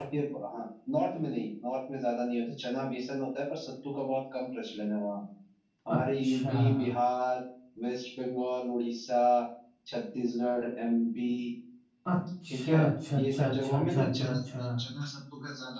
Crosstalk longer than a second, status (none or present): present